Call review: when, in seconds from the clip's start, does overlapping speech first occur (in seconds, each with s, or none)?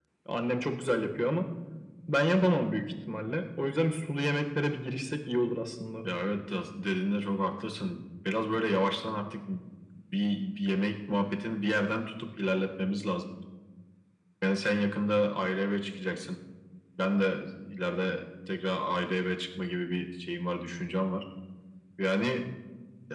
none